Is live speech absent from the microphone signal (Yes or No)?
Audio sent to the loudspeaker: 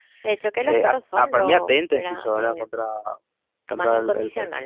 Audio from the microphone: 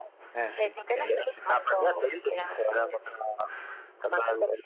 No